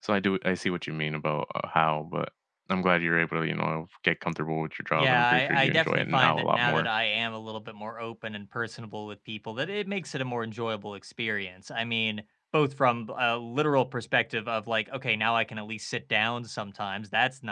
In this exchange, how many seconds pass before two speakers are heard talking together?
4.9 s

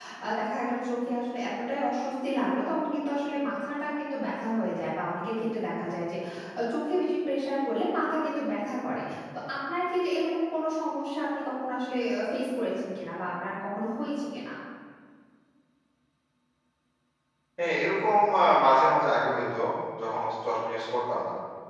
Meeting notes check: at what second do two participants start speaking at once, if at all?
none

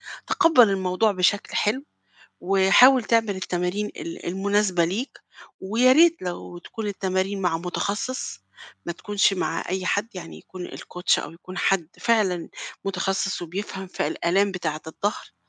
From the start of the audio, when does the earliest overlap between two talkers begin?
none

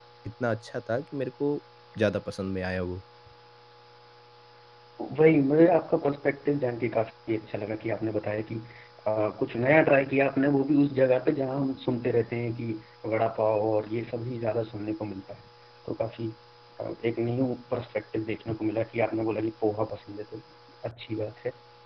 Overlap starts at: none

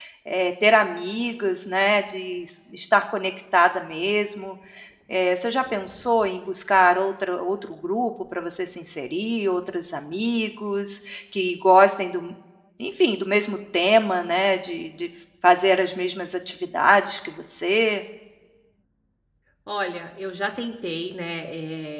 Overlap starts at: none

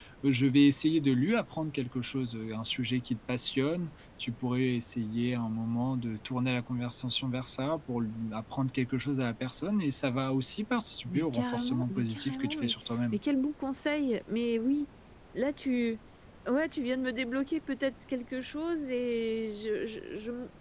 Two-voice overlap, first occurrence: 11.1 s

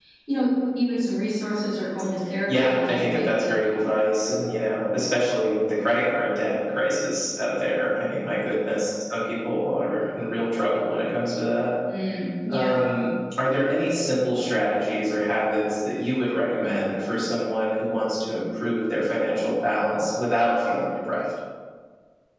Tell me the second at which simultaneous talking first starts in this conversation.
2.5 s

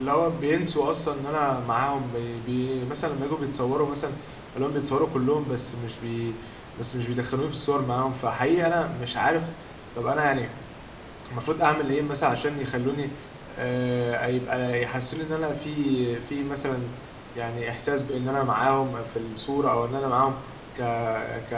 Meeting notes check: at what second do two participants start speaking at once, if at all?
none

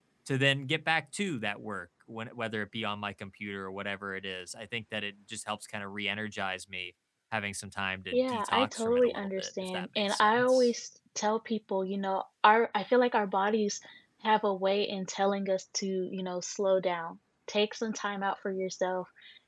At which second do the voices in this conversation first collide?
8.1 s

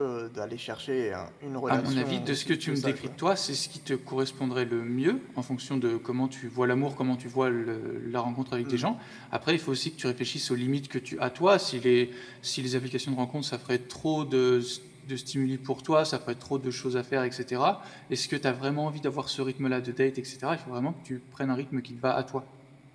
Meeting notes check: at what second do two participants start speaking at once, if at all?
1.7 s

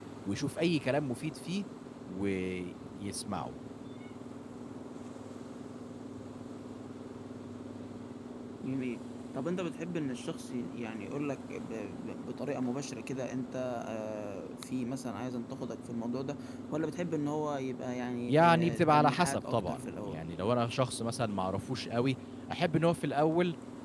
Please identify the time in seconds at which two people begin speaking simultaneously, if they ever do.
18.3 s

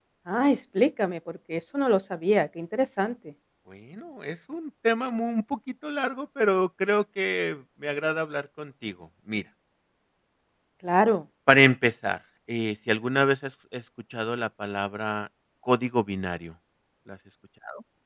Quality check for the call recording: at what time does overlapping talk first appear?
none

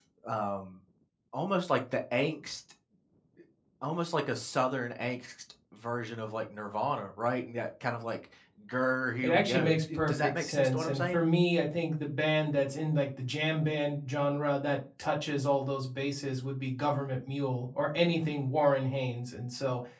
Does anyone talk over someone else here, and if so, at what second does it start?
9.2 s

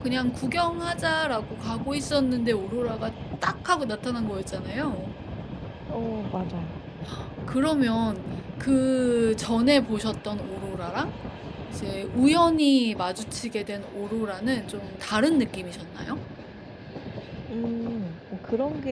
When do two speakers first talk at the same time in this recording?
none

